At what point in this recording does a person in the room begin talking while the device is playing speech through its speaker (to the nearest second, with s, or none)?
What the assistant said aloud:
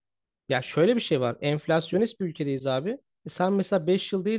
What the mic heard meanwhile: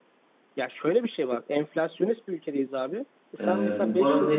3 s